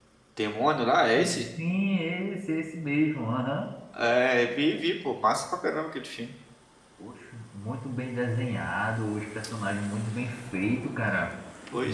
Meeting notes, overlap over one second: none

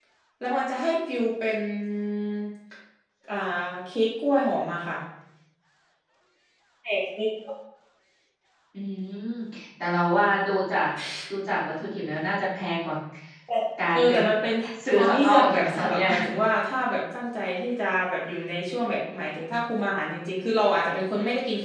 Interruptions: present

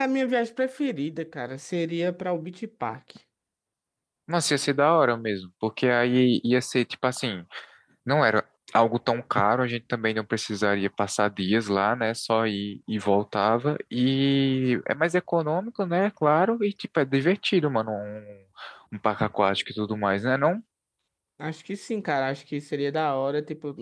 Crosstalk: none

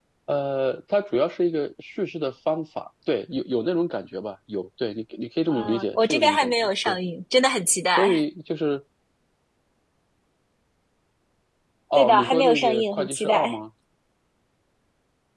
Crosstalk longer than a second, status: present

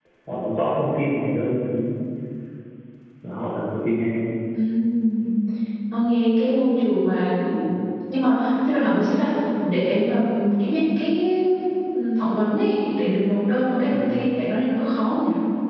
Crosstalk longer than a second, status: none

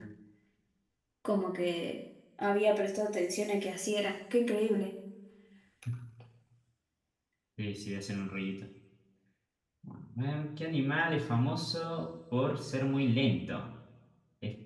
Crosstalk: none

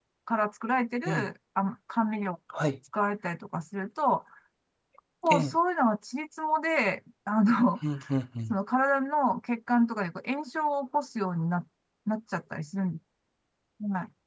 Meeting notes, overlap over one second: none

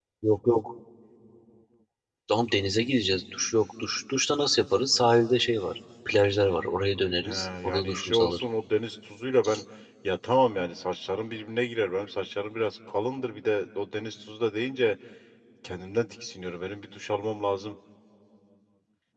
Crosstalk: present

